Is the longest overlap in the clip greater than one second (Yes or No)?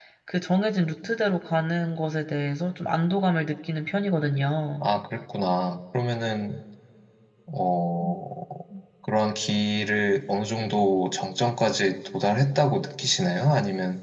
No